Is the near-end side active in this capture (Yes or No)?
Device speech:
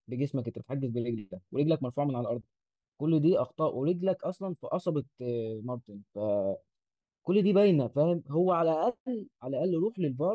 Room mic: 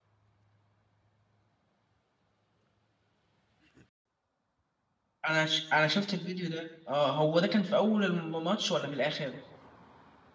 Yes